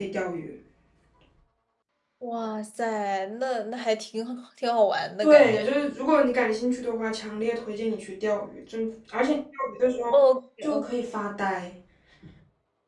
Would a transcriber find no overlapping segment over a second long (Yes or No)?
Yes